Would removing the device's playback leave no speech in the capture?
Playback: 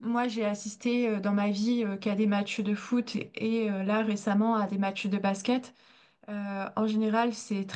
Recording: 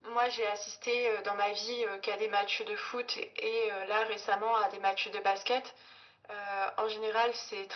Yes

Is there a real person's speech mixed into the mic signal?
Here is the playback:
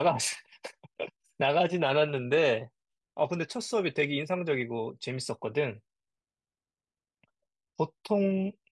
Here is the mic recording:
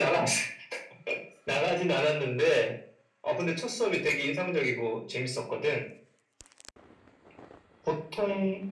No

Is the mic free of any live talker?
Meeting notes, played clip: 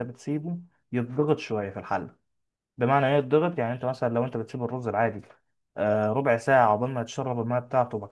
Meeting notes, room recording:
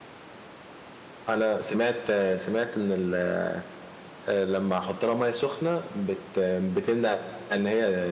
No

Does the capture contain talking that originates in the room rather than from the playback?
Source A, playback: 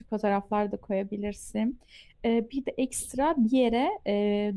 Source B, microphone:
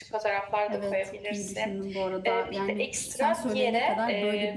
Yes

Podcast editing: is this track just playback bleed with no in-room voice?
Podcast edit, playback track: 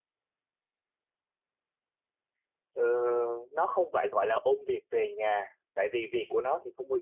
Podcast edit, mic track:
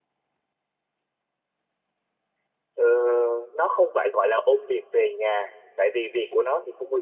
Yes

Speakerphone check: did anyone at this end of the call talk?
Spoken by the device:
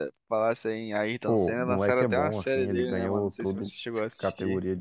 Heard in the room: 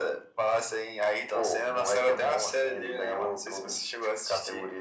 No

